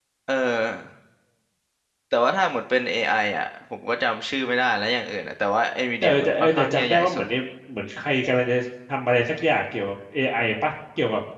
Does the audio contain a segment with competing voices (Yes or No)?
Yes